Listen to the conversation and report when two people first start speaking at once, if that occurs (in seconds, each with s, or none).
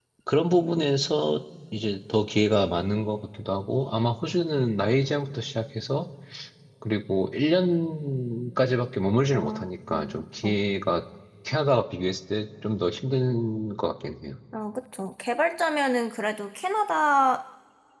9.3 s